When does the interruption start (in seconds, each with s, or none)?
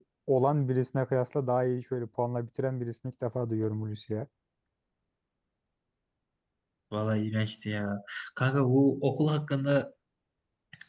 none